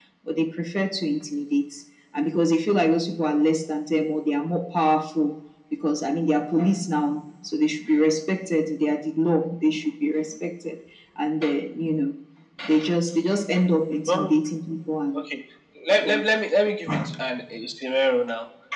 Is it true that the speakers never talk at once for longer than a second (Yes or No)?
Yes